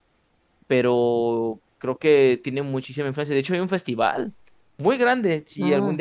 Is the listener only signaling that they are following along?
Yes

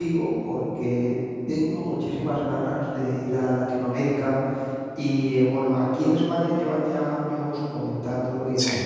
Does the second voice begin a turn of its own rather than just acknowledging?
No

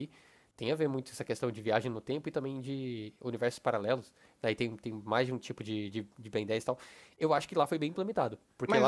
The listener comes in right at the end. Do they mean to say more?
Yes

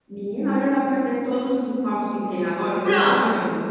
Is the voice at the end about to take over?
Yes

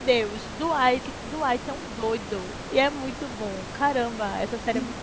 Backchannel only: No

